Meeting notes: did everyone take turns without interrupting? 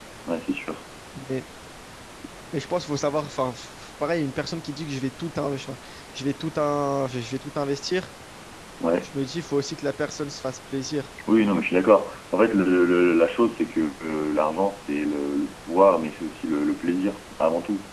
Yes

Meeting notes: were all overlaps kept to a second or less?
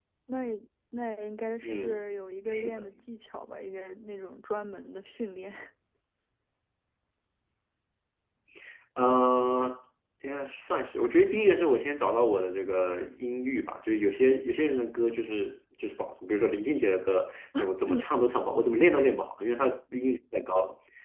Yes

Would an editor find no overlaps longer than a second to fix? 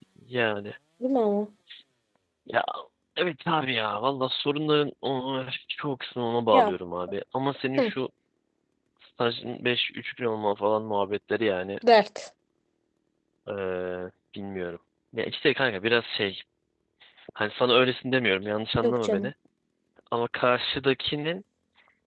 Yes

